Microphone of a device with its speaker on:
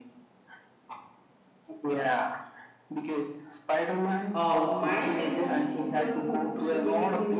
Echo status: present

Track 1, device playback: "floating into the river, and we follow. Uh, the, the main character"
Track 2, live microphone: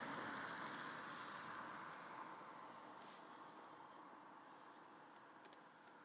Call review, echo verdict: none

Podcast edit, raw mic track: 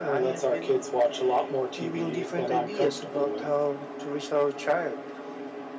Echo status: present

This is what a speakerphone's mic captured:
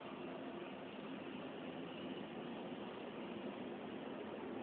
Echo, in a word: none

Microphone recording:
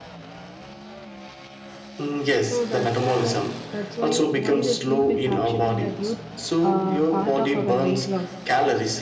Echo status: present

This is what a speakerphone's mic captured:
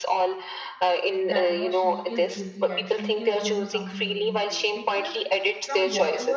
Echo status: present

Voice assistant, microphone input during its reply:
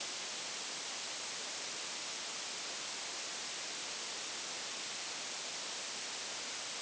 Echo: none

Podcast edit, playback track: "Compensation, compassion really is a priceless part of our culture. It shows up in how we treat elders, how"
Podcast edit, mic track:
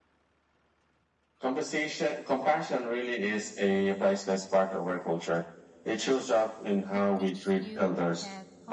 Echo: present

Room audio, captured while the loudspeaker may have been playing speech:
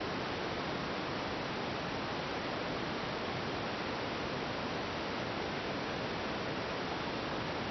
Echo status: none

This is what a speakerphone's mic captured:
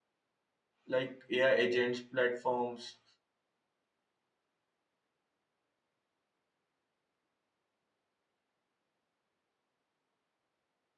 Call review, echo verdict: none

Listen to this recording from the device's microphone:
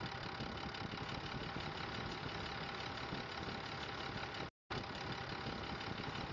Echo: none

